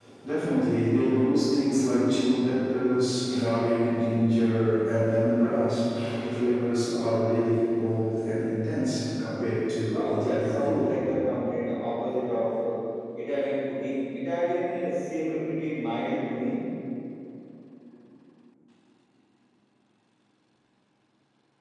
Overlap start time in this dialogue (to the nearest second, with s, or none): 10 s